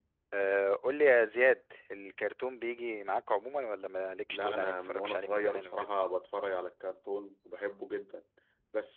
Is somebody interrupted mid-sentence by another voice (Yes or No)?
Yes